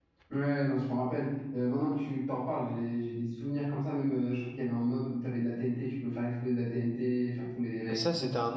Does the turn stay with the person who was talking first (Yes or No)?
No